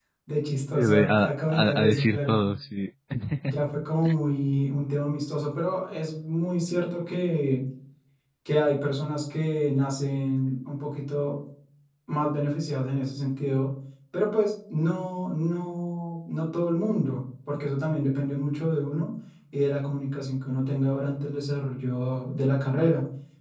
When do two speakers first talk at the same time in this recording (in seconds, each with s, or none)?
0.7 s